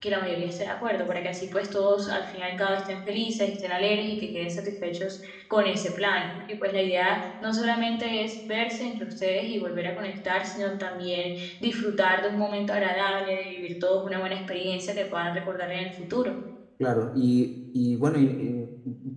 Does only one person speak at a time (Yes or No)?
Yes